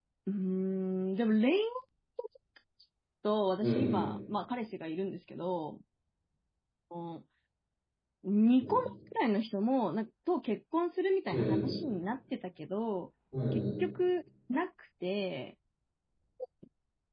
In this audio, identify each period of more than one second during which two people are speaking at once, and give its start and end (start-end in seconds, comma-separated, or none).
none